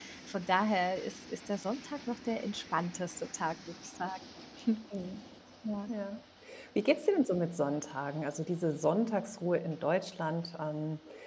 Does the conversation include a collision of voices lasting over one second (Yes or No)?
No